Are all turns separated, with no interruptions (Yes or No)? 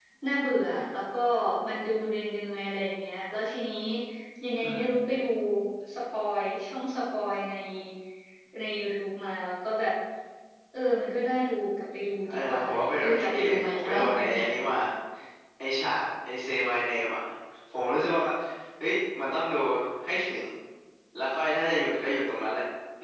No